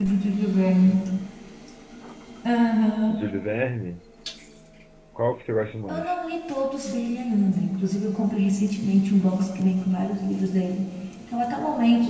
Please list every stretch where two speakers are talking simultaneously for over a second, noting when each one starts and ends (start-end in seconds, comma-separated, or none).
none